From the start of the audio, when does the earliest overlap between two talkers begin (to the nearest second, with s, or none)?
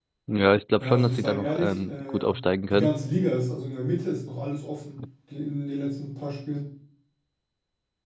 1 s